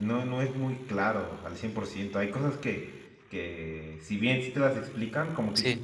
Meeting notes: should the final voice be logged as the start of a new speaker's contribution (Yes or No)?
No